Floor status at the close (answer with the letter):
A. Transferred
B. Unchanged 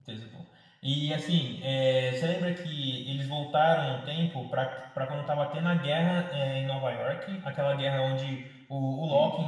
B